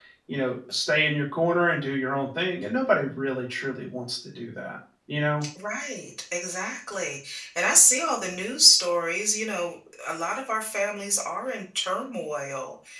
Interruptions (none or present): none